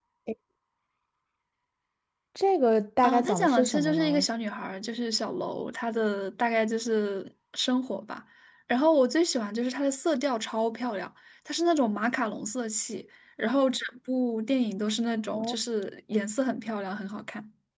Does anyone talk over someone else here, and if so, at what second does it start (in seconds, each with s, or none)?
3.0 s